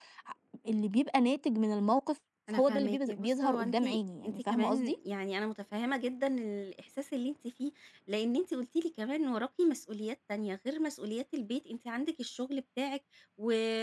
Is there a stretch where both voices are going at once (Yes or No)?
Yes